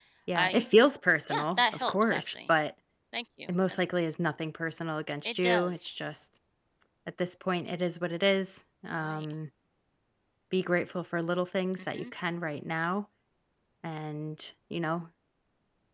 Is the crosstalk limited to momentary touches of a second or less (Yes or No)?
No